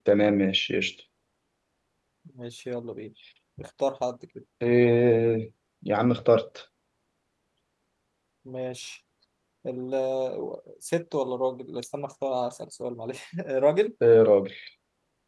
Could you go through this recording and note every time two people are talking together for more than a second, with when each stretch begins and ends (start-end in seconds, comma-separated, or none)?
none